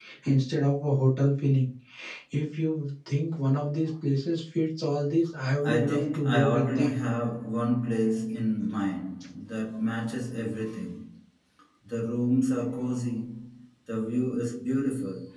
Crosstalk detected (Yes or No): Yes